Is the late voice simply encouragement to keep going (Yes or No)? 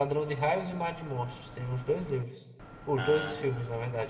Yes